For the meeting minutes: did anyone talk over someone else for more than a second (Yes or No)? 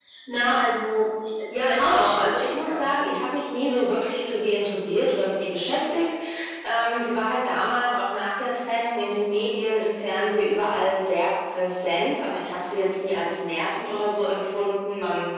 Yes